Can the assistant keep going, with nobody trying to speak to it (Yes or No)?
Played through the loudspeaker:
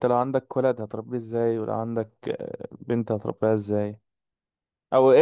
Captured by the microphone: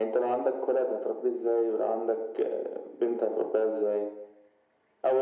Yes